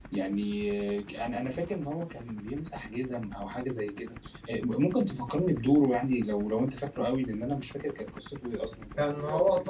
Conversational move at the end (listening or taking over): taking over